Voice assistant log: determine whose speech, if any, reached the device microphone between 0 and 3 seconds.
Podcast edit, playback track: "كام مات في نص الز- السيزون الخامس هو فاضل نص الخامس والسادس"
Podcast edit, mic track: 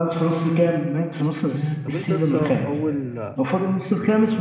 both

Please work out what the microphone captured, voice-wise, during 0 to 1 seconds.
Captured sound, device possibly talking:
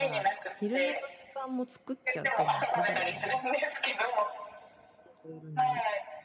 both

